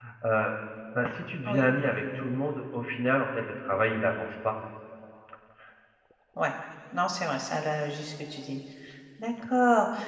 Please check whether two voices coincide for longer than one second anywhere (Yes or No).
No